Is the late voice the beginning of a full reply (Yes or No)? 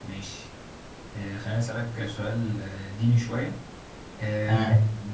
No